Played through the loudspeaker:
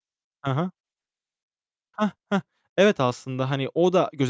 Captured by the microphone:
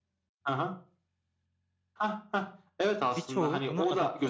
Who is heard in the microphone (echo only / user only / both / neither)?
both